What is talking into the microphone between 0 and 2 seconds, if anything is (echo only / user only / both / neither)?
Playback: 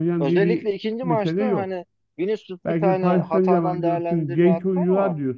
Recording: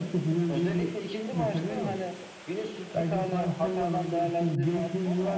echo only